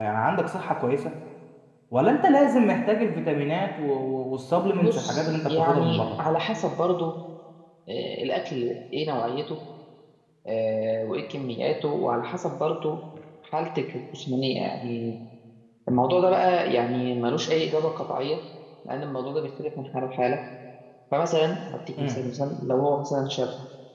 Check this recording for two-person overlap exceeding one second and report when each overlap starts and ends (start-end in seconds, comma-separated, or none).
4.8-6.0